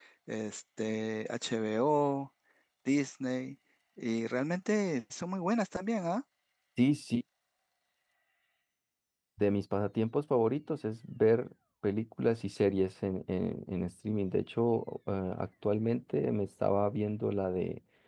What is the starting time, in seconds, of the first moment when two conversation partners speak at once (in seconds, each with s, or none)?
none